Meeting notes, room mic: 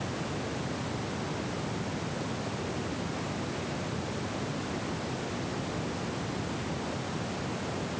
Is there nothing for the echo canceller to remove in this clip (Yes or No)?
Yes